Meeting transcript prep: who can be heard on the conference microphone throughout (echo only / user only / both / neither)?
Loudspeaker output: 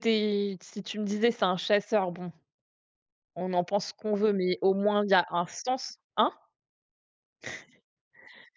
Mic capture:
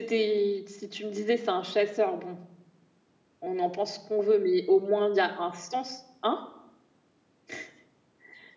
echo only